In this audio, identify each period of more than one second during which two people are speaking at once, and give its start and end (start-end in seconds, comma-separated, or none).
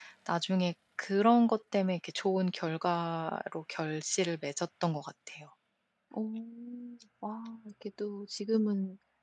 none